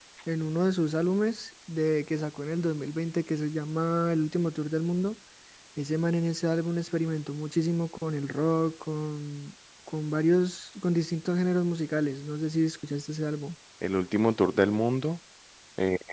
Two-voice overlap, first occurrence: none

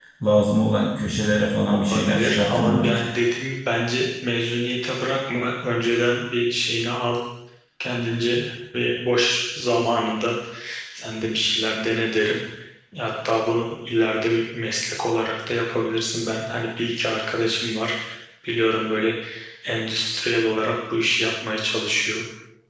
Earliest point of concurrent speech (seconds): 2 s

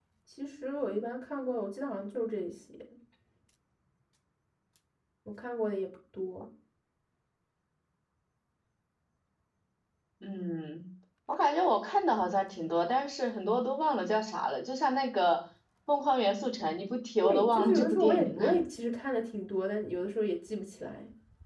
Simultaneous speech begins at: 17 s

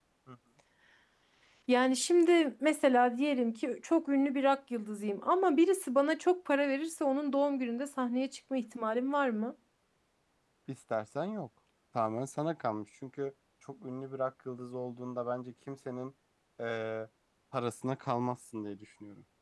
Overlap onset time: none

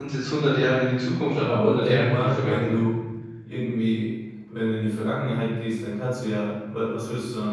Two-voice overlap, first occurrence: 1 s

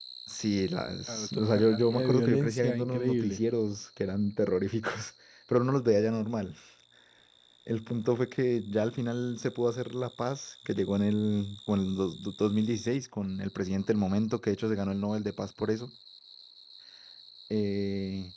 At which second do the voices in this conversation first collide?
1 s

